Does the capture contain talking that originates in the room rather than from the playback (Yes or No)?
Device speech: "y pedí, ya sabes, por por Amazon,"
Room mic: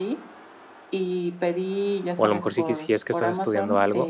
Yes